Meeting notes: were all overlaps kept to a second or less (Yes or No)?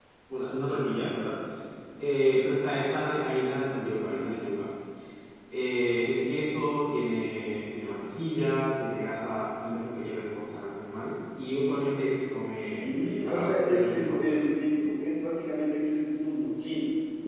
No